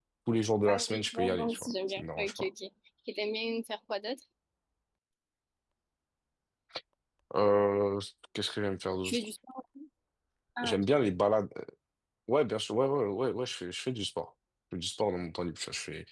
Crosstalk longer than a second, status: present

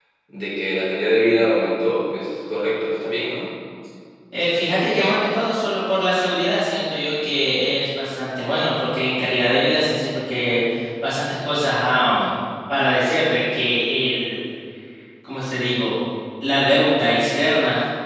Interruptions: none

